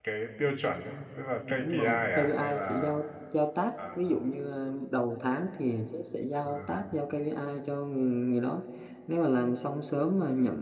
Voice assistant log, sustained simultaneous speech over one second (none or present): present